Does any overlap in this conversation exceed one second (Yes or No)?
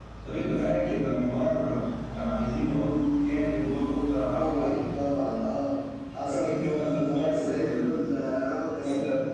Yes